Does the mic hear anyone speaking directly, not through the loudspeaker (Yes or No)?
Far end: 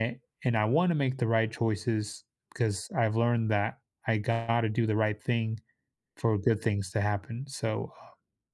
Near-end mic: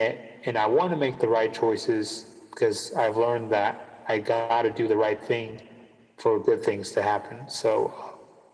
No